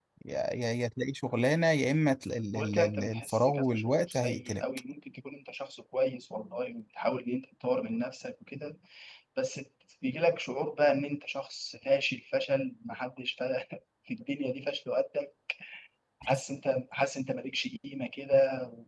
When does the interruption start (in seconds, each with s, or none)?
2.5 s